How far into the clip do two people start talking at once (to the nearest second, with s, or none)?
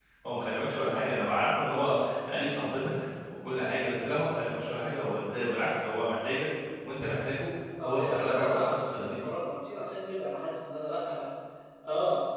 8 s